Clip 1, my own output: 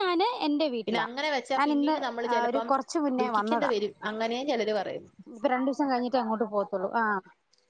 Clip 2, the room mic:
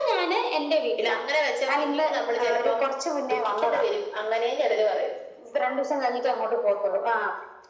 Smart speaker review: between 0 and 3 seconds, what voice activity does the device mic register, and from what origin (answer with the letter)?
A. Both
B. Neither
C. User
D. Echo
D